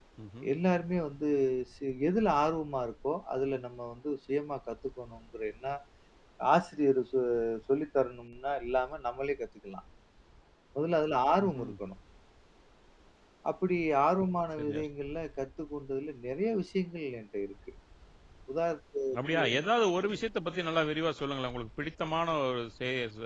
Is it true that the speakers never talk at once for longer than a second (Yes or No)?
Yes